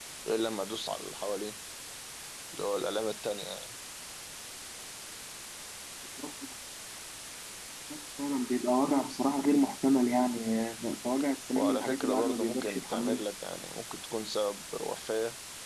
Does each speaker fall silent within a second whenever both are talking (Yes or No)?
No